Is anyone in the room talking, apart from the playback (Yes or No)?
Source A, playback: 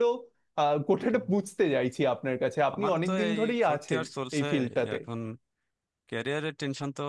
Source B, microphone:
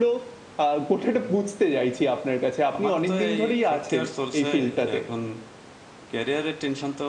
No